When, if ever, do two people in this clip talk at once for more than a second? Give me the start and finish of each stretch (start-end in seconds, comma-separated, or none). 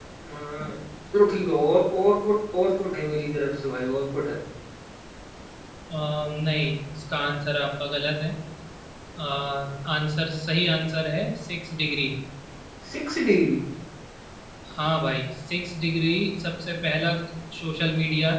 none